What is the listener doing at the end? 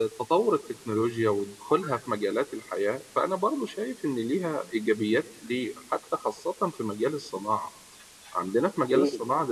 listening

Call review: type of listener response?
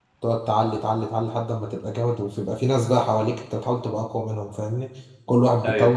listening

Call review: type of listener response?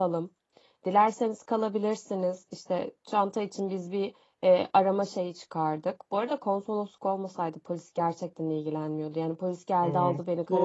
taking over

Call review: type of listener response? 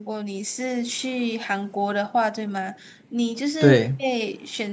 listening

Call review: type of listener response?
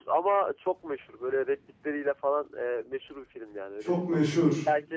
listening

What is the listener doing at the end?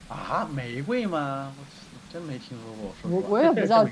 taking over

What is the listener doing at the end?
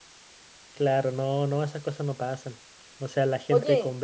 listening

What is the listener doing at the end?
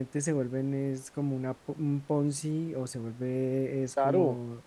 taking over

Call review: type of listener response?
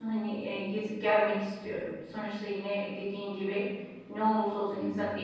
listening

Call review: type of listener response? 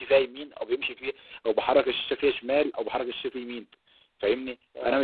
listening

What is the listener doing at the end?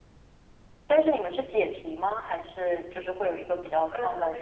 taking over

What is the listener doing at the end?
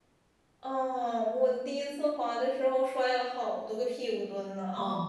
taking over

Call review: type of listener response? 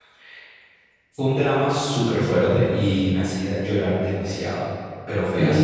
taking over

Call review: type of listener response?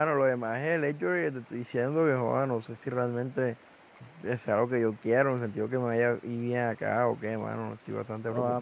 taking over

